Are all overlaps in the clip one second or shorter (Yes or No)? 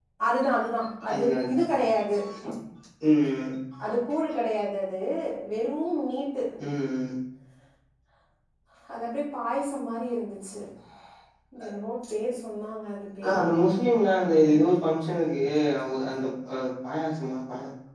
Yes